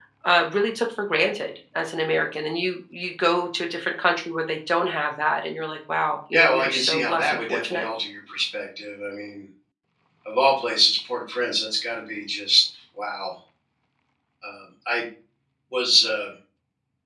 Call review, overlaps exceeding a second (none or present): present